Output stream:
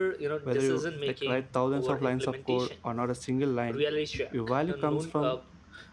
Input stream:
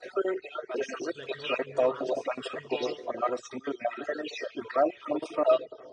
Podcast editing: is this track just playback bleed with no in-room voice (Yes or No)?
No